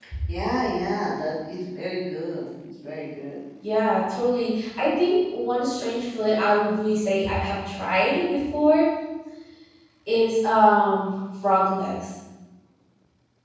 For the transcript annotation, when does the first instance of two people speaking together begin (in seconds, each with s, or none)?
none